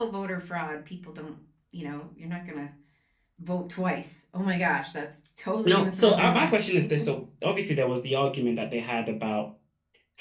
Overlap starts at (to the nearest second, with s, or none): 6 s